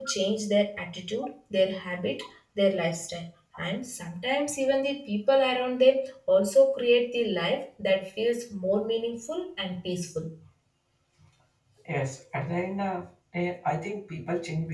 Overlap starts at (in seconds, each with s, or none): none